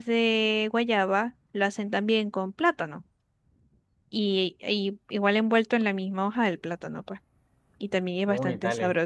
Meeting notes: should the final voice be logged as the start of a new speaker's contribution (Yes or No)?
Yes